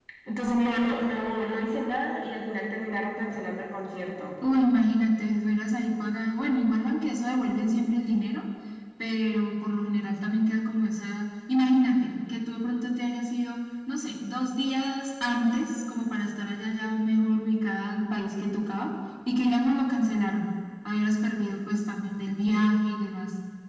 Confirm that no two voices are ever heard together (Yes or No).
Yes